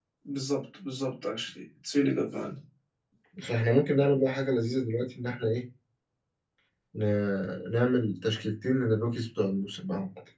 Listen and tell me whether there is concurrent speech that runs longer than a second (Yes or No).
No